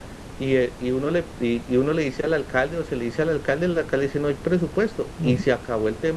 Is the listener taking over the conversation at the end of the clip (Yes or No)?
No